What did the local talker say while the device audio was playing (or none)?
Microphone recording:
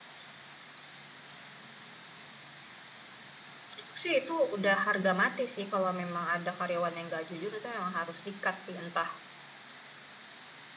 Menurutku sih itu udah harga mati sih kalau memang ada karyawan yang nggak jujur itu memang harus di-cut sih entah